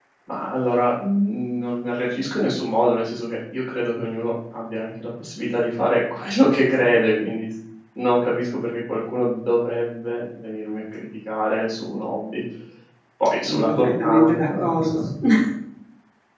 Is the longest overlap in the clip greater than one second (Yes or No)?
Yes